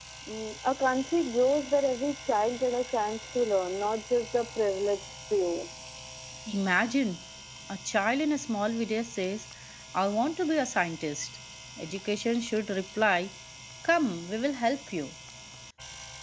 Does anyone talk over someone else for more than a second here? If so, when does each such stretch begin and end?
none

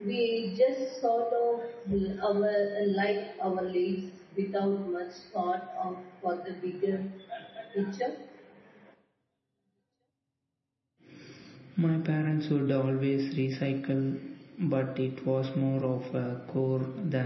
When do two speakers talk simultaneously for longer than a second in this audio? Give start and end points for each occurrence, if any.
none

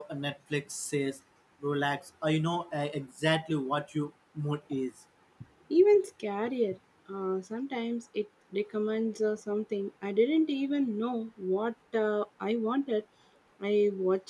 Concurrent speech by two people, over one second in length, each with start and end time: none

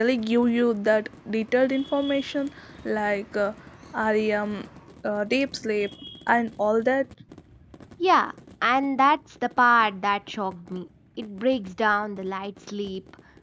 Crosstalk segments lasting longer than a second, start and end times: none

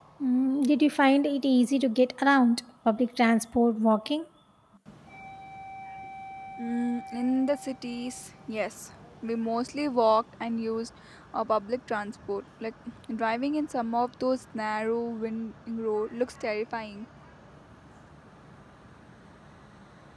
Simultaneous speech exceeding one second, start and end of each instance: none

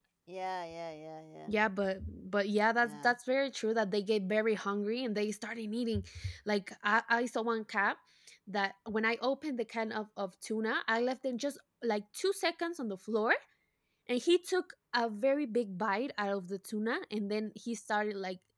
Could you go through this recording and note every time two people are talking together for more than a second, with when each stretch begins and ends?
none

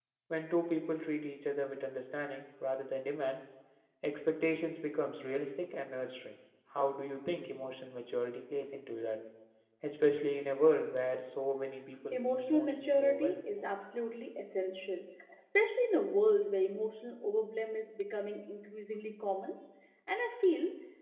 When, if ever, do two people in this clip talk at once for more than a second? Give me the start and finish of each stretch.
12.1-13.4

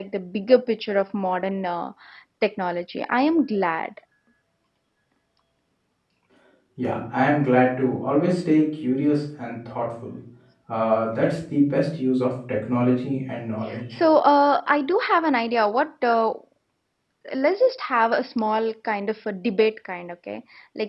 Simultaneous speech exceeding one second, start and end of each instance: none

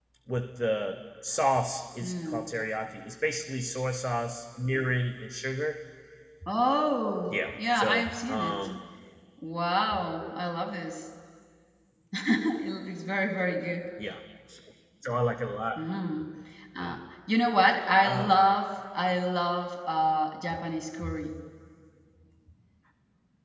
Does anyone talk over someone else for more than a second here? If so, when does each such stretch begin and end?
7.3-8.6

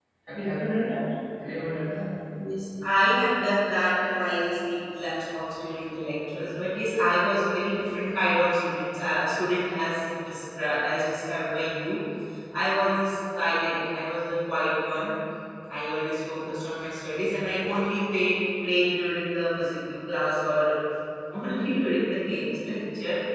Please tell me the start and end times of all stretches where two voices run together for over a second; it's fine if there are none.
none

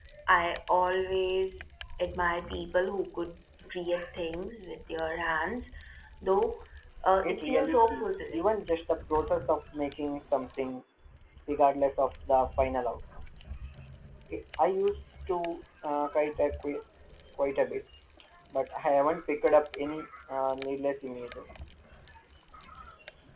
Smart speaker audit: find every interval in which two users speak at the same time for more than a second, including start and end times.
7.2-8.5

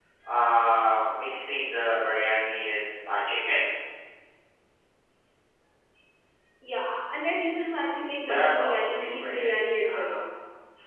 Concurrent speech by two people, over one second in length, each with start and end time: 8.2-10.1

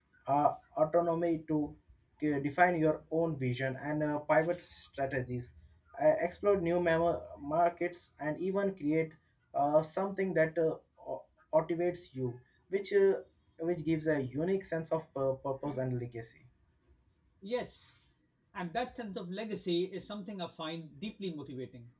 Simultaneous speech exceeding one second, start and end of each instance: none

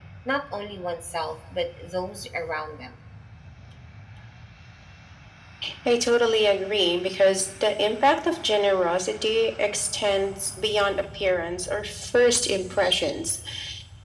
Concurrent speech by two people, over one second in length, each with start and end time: none

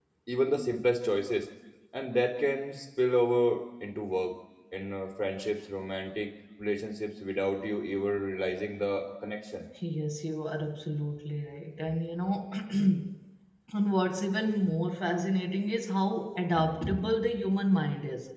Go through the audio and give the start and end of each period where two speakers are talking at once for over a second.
none

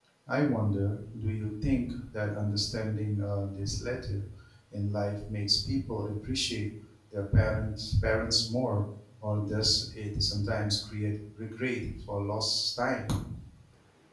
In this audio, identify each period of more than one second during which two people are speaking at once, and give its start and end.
none

